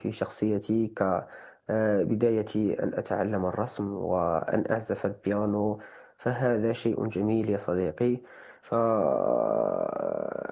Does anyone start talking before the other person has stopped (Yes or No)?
No